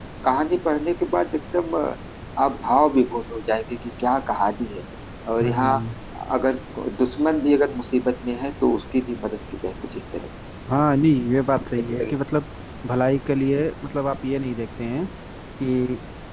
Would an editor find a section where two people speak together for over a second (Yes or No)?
No